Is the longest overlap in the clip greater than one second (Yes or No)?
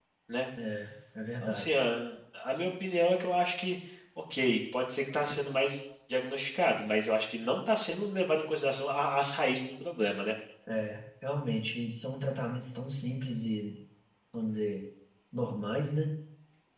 No